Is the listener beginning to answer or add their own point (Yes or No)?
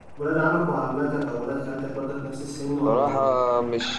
Yes